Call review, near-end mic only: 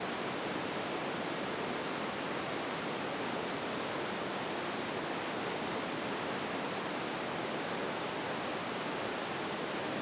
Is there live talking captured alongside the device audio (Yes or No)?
No